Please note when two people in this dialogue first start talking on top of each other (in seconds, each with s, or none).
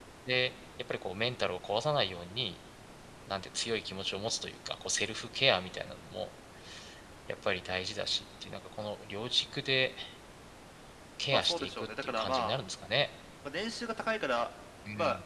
11.3 s